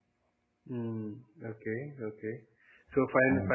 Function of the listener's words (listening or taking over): listening